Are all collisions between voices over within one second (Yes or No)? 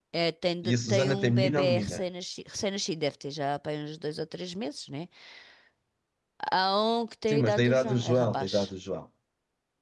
No